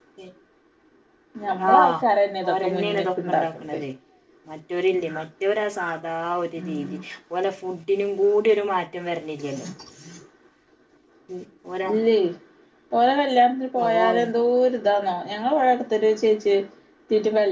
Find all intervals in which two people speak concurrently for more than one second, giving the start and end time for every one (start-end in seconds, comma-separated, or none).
2.5-3.8